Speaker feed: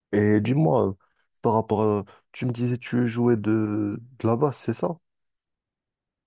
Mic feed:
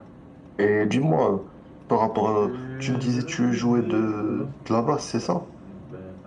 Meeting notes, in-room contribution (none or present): present